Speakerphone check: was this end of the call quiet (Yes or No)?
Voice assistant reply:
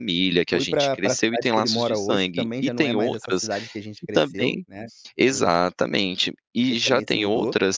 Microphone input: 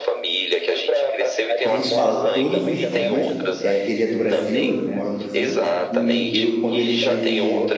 No